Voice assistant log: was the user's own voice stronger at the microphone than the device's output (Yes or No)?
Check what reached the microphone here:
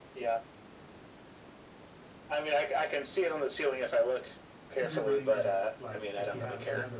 No